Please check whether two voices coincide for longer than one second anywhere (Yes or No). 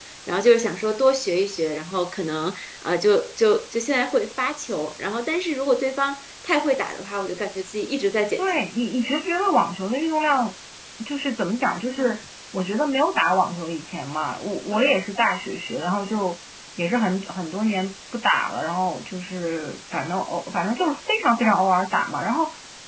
No